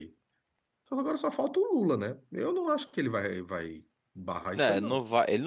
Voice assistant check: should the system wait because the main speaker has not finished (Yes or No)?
No